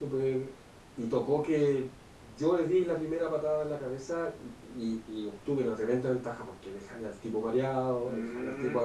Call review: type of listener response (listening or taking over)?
taking over